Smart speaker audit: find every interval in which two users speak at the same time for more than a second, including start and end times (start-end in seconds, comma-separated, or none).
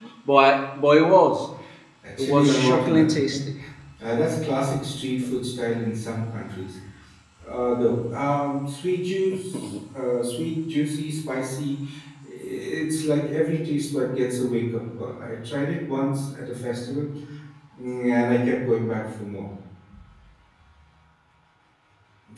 2.2-3.4